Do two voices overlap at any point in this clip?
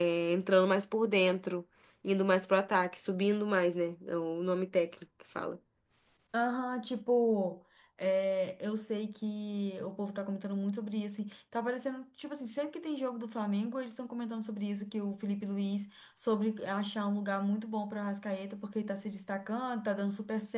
No

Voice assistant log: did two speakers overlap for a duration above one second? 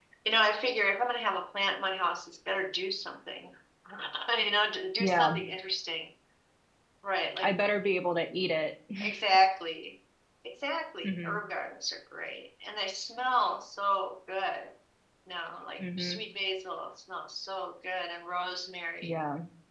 No

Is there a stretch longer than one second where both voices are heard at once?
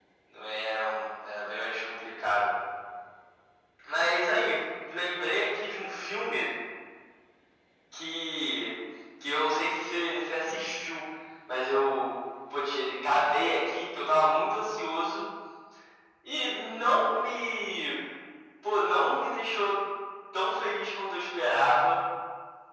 No

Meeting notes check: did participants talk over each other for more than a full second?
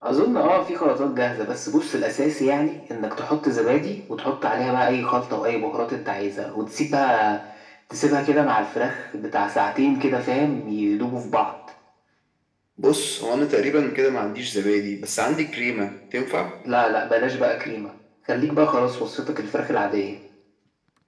No

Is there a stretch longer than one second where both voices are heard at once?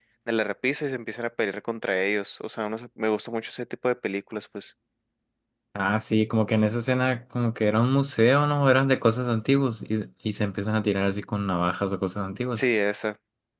No

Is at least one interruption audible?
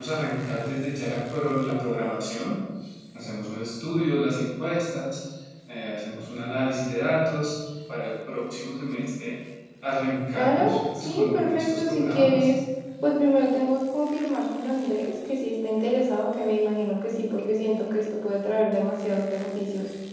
Yes, from 10.3 s

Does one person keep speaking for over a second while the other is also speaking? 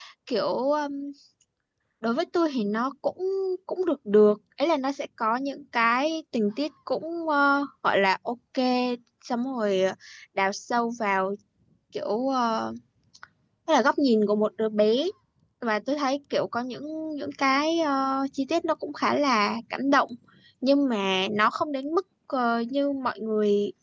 No

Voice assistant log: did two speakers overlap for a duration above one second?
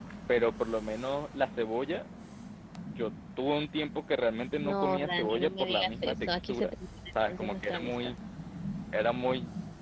Yes, from 4.6 s

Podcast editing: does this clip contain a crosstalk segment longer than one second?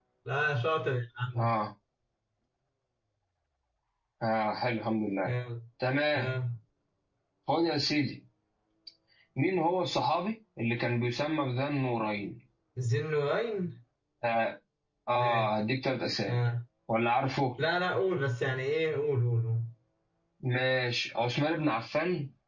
No

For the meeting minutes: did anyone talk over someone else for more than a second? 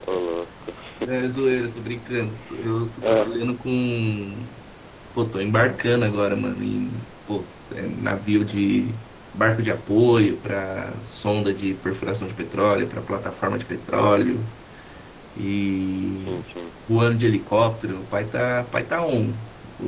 No

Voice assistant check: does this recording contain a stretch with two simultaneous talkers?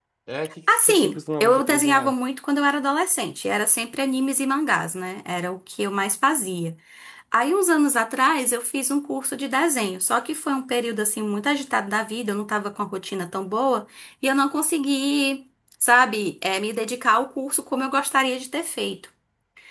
Yes, from 0.7 s

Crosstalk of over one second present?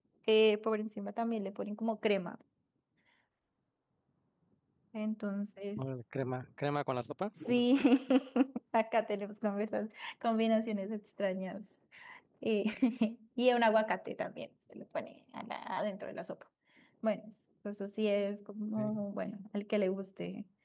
No

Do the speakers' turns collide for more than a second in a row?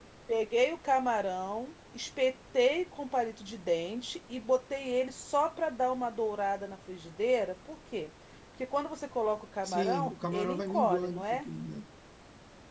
Yes, from 9.6 s

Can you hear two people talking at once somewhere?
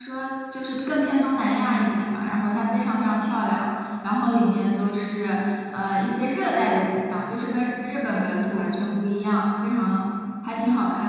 No

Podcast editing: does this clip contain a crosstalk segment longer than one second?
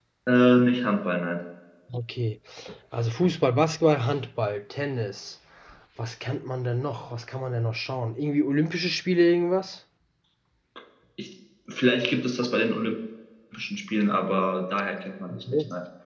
No

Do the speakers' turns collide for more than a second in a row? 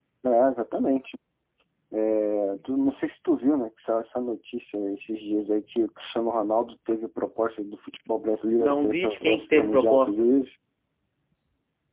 Yes, from 8.6 s

